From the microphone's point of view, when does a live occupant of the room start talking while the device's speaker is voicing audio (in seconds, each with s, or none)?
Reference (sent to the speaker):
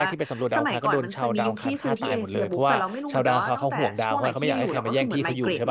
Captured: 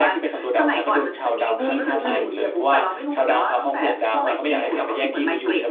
1.6 s